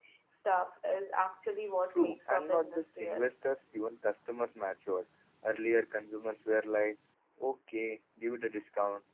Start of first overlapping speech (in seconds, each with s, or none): 1.9 s